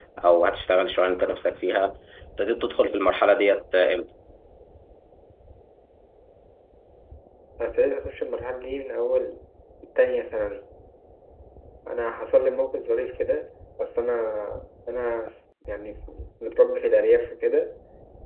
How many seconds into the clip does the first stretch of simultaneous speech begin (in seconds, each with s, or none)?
none